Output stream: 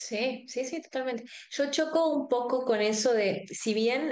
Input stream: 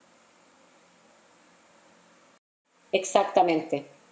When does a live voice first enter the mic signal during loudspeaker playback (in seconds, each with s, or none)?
2.9 s